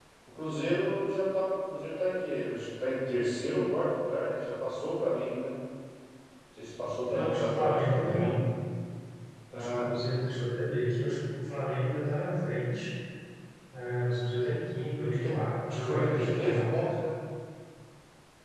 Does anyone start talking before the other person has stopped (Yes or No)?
Yes